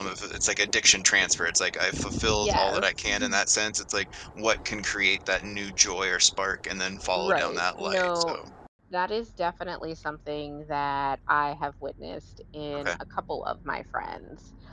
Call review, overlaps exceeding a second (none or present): present